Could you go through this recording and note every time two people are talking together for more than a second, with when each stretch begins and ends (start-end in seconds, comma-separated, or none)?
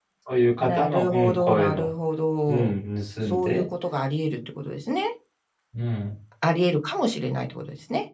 0.6-1.9